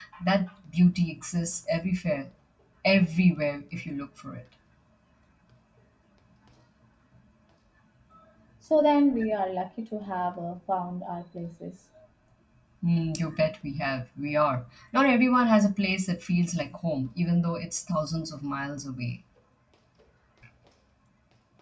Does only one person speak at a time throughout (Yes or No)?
Yes